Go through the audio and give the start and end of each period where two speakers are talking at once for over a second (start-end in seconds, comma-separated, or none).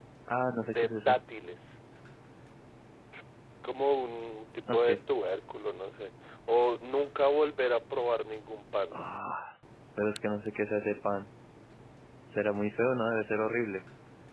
none